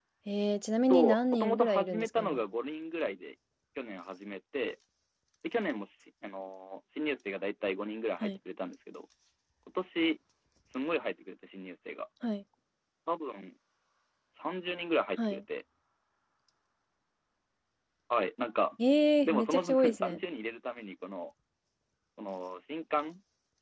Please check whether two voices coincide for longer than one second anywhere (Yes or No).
Yes